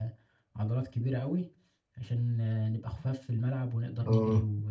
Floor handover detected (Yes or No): Yes